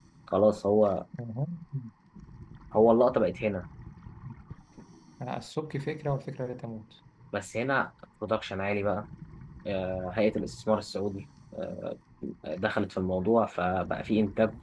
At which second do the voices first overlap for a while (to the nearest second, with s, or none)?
none